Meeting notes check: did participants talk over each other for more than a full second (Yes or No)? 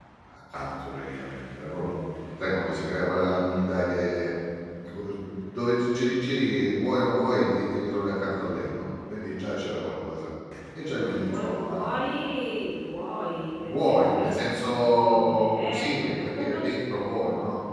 Yes